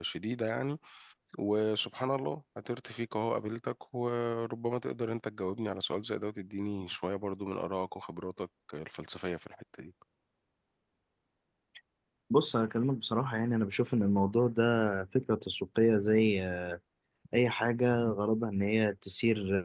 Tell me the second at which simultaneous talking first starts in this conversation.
none

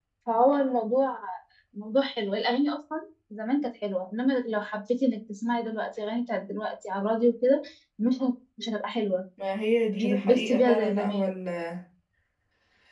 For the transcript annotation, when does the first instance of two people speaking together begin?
10 s

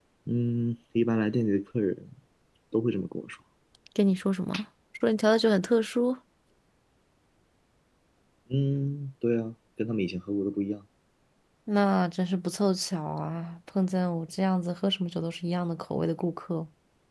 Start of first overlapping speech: none

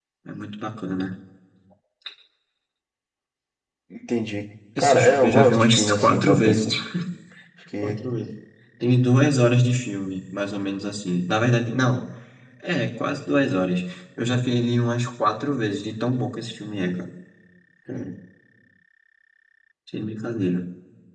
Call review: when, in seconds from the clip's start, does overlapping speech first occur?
5 s

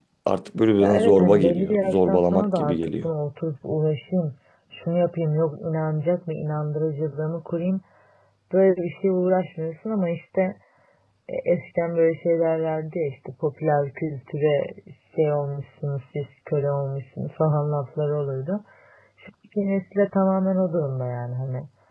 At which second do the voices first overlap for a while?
1 s

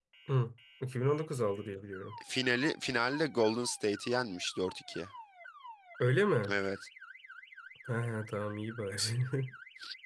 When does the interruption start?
none

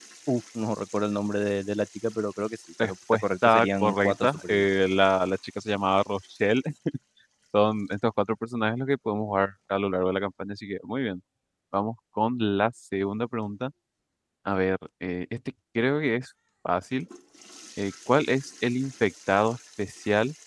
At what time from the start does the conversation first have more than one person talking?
3 s

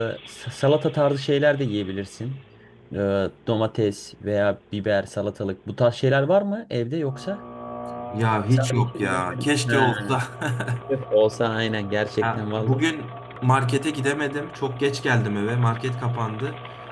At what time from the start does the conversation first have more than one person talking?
9 s

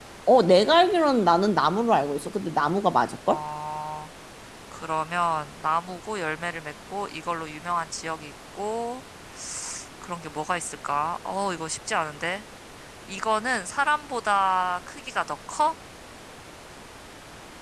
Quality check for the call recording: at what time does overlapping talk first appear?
none

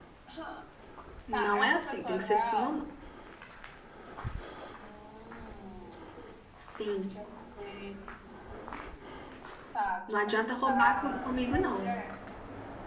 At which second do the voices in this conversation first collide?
1 s

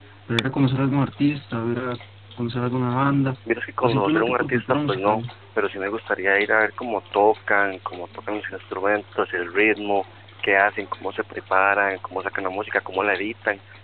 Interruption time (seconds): 4 s

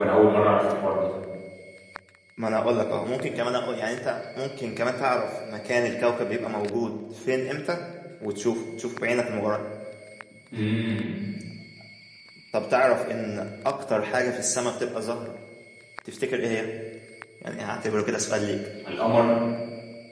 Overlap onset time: none

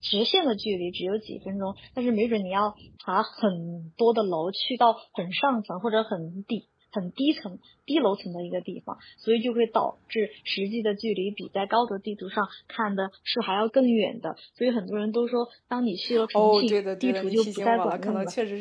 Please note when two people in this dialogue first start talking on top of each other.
16 s

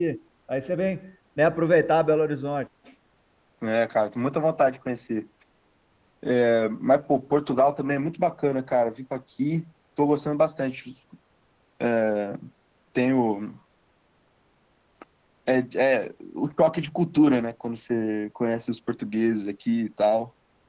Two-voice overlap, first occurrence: none

